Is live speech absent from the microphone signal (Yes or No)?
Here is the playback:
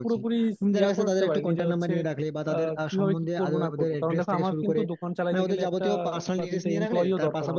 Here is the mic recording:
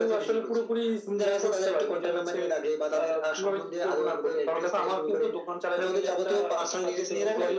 Yes